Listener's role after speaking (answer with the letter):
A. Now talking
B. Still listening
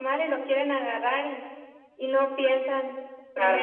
B